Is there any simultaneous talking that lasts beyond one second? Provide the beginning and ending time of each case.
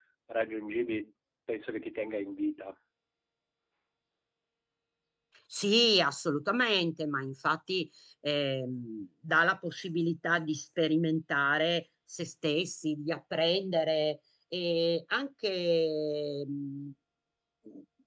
none

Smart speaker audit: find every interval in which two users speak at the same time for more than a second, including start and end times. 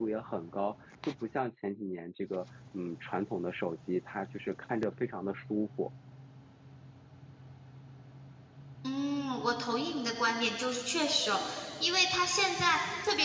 none

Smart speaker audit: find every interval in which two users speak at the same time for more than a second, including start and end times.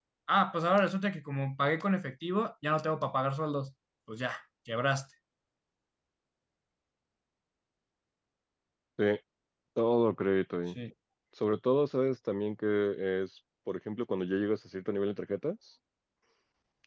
none

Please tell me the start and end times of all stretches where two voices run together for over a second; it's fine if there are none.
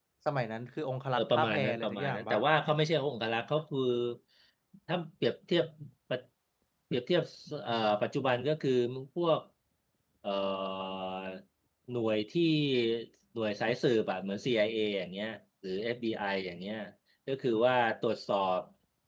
1.2-2.4

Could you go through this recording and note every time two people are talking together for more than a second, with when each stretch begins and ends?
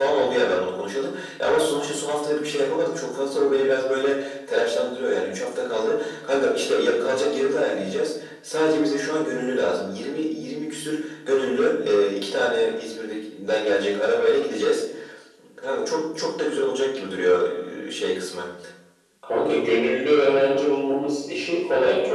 none

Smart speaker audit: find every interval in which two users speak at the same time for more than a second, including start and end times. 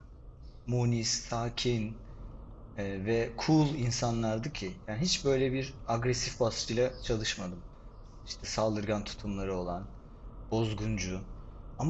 none

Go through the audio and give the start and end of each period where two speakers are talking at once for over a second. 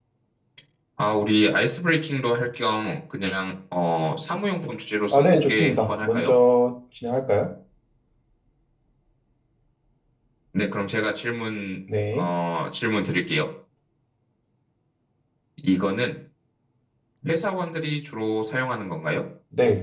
5.1-6.3

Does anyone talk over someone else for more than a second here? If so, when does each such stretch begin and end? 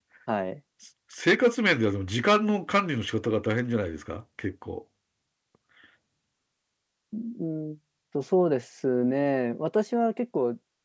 none

